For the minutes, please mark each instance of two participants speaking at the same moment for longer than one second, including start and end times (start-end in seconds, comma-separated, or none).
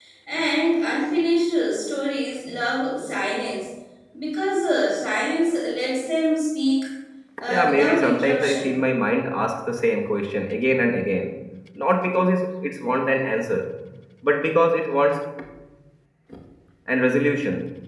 7.5-8.7